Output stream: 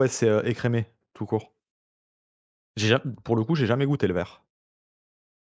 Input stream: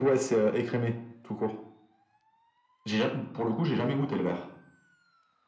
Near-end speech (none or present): none